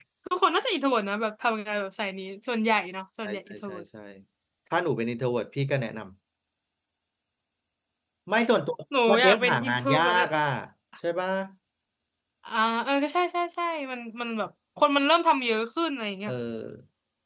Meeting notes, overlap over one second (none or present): present